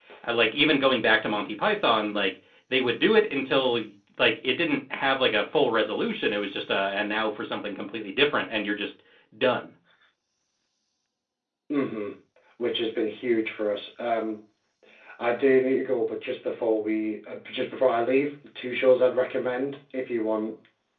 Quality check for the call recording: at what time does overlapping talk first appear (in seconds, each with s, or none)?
none